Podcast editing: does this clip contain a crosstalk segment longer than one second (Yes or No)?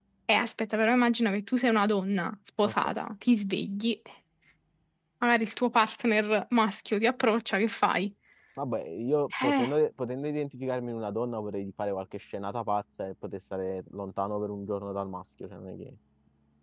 No